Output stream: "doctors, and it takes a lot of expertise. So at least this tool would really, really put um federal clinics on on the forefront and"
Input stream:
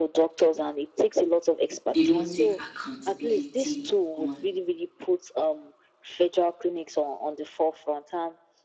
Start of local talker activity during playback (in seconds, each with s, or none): 1.8 s